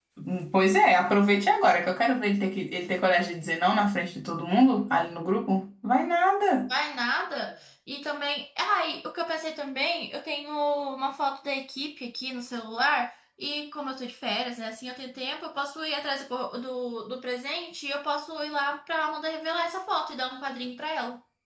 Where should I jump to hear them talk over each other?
none

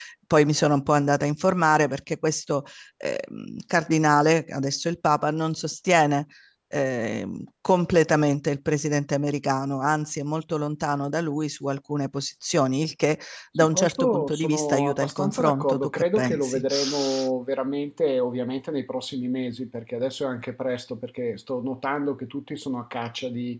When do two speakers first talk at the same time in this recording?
13.6 s

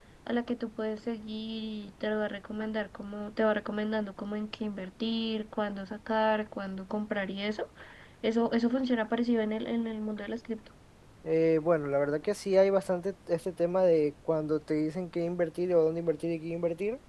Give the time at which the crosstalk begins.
none

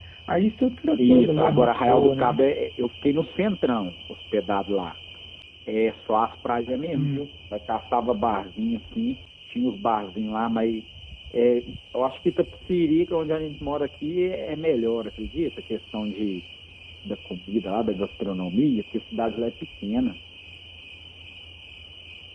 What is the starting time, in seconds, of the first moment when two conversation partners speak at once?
1.0 s

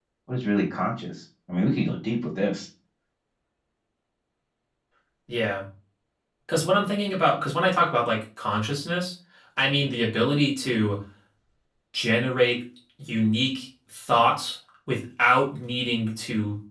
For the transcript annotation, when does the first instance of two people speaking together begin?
none

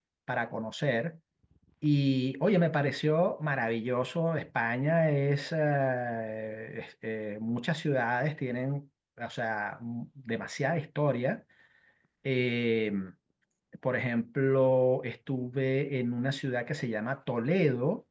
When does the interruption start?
none

